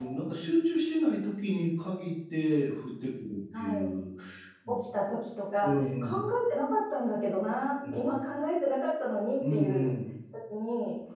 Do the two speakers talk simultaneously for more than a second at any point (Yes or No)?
No